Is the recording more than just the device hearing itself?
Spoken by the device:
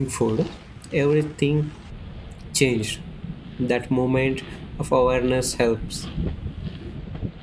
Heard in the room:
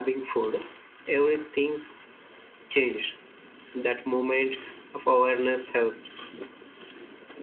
No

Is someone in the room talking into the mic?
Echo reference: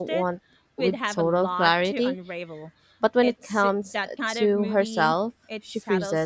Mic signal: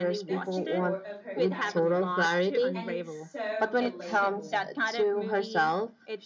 Yes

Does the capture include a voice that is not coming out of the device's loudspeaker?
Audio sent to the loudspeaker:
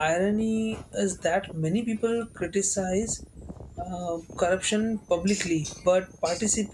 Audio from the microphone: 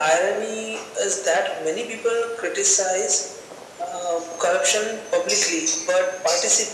No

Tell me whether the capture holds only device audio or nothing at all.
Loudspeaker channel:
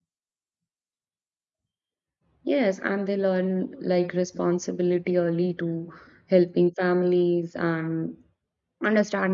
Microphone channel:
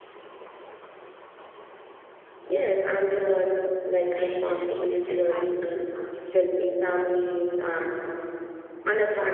No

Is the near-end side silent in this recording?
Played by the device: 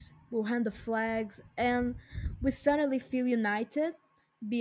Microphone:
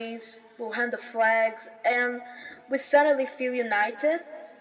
Yes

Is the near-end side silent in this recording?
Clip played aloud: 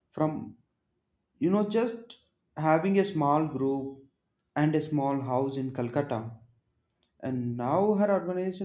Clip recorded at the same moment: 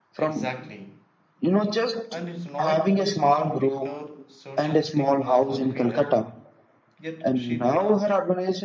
No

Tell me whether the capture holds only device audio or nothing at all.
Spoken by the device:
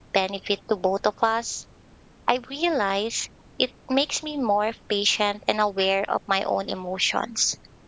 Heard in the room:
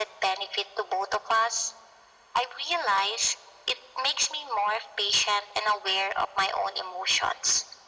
Yes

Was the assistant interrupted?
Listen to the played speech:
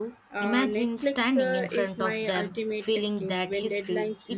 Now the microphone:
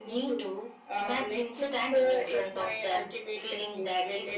No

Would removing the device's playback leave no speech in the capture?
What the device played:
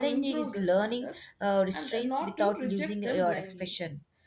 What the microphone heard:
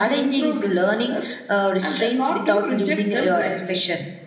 Yes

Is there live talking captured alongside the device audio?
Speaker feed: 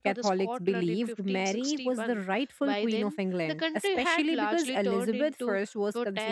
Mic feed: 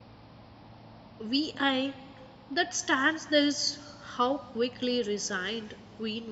Yes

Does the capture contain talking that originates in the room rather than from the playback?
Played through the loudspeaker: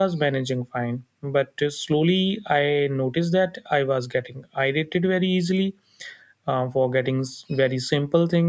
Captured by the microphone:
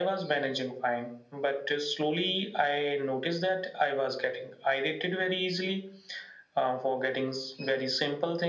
No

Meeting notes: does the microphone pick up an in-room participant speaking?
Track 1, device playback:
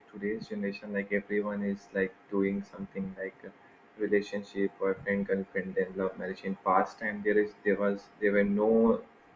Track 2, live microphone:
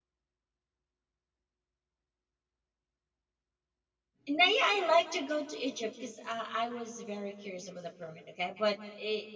Yes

